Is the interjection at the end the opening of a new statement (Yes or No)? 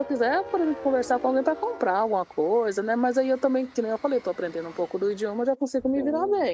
Yes